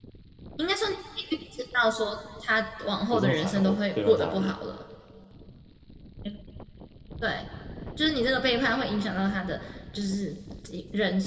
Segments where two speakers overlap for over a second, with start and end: 3.1-4.5

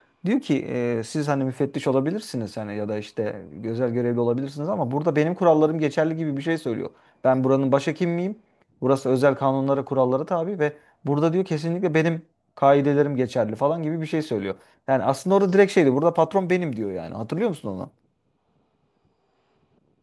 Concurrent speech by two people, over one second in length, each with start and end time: none

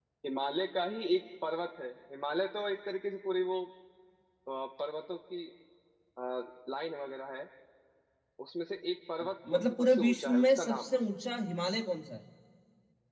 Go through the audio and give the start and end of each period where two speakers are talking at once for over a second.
9.5-10.9

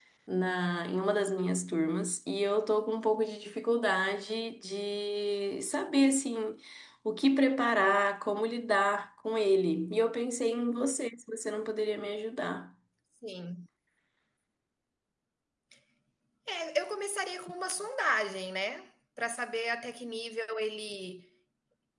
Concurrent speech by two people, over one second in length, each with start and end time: none

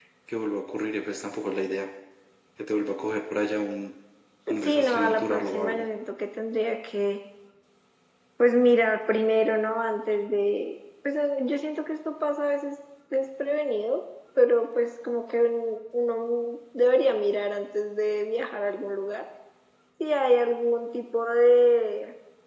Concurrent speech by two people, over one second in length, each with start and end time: 4.6-5.8

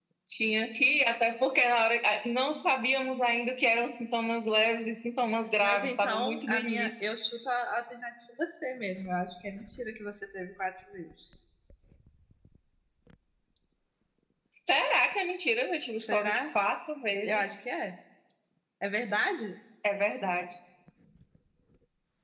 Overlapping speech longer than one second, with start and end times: 5.6-6.9

